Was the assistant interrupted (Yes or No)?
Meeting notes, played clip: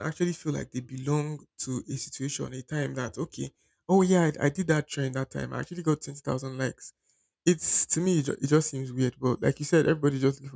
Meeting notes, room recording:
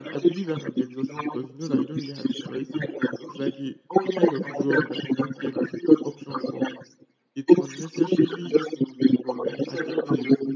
Yes